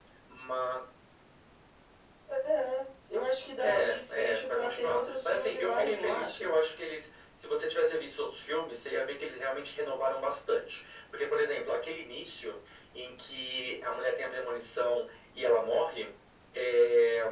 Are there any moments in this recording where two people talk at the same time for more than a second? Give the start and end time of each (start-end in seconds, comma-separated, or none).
3.6-6.5